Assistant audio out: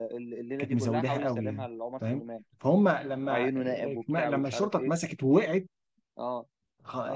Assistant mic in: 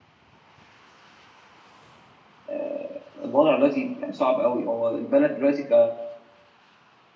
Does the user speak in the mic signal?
Yes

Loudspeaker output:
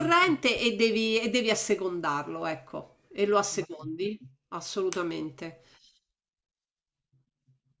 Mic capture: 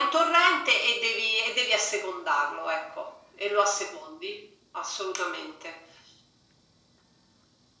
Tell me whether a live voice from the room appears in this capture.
No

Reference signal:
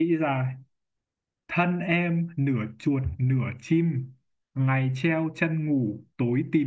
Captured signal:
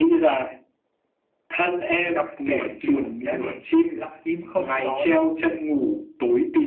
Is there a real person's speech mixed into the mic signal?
Yes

